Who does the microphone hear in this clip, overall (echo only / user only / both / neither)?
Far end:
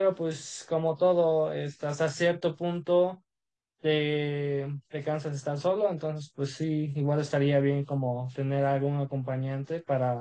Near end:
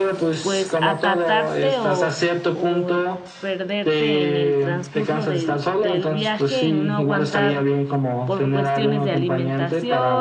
both